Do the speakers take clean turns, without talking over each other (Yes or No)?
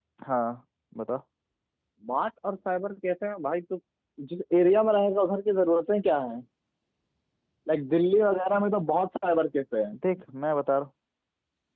Yes